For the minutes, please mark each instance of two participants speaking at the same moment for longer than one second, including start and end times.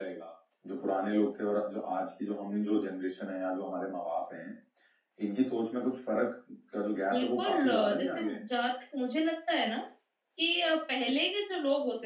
7.1-8.4

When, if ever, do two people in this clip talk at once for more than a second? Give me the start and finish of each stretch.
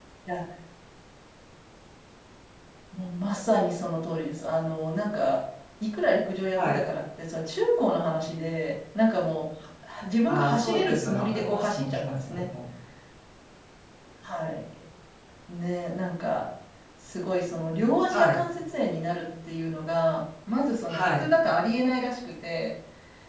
10.3-12.4

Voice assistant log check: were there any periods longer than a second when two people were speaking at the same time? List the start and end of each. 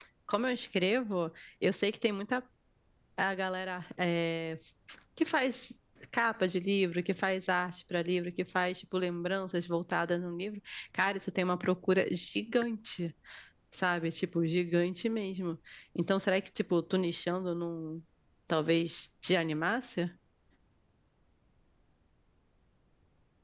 none

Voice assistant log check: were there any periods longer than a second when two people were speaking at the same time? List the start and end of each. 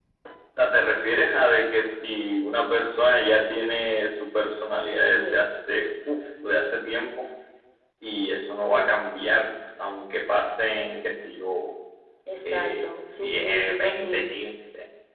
12.5-14.3

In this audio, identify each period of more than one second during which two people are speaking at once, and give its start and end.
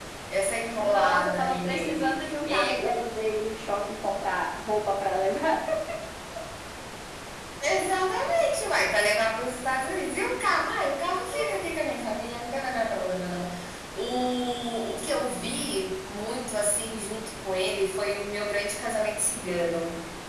0.8-2.9

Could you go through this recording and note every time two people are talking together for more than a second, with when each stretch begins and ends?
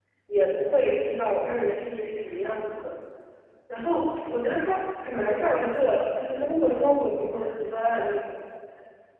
none

